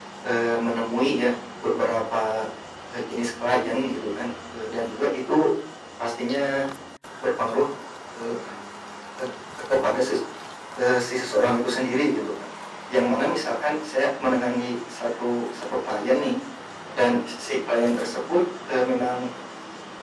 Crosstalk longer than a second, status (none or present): none